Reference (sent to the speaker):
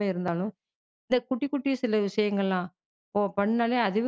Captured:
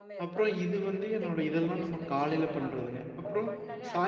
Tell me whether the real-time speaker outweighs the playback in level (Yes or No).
Yes